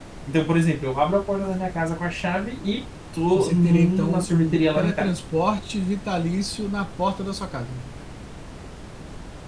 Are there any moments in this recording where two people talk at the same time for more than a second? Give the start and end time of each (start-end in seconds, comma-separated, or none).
3.4-5.1